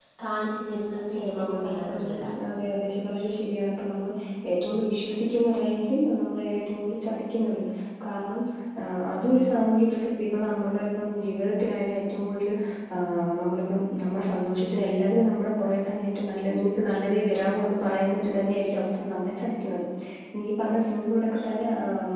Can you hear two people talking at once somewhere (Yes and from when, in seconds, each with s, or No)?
Yes, from 1.0 s